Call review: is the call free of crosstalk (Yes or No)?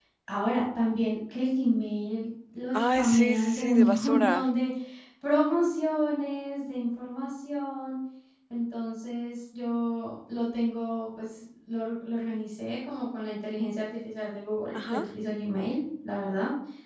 No